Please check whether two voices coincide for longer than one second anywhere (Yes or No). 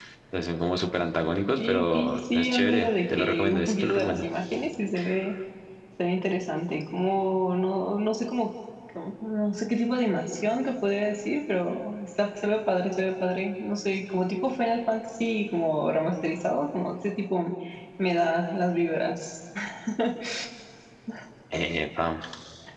Yes